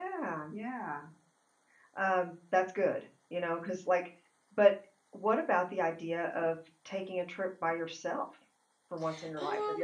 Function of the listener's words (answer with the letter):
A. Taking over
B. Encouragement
A